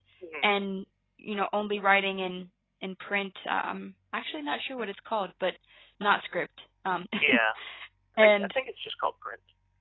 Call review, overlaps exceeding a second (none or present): none